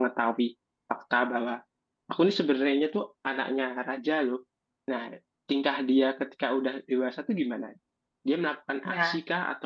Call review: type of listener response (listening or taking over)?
listening